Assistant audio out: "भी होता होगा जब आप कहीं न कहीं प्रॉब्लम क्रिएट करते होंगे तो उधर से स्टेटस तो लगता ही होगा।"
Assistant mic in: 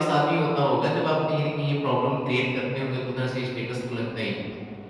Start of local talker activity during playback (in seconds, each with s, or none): none